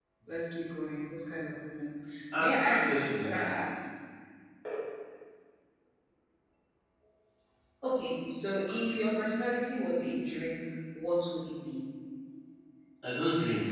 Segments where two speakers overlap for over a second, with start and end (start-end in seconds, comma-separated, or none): 2.4-3.6